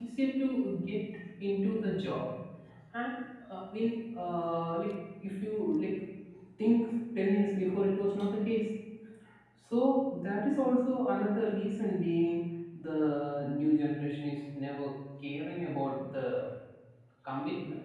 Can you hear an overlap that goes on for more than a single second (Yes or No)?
No